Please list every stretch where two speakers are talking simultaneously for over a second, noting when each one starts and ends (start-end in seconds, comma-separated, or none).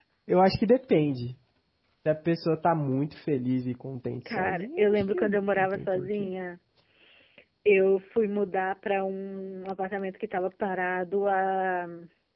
4.2-6.3